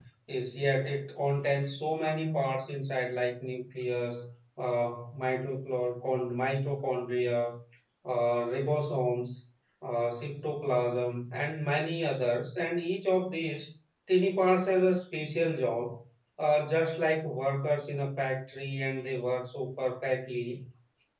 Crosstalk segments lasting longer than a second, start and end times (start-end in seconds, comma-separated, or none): none